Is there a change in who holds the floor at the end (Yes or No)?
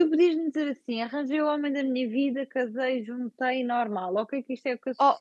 No